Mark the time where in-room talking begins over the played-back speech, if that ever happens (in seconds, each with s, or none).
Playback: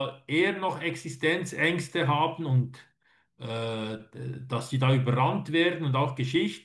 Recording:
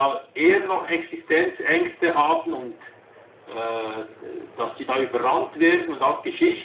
none